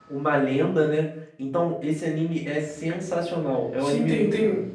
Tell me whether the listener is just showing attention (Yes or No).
No